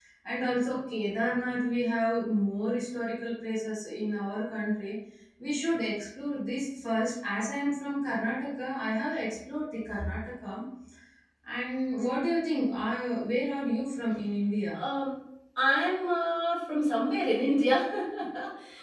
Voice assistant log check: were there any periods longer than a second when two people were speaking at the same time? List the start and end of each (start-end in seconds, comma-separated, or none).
none